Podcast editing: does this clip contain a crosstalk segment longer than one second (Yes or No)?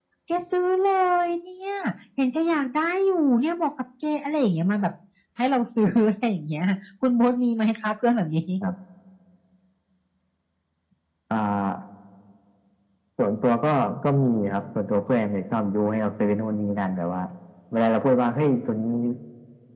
No